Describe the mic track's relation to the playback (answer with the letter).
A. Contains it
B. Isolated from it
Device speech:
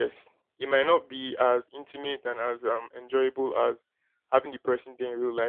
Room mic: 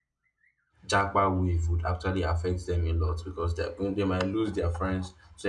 B